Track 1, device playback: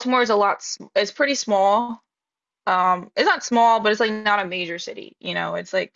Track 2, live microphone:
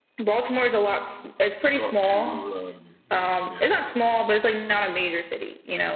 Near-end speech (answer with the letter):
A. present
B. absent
A